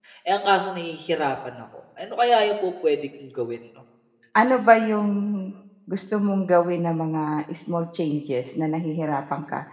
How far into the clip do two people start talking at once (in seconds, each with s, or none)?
none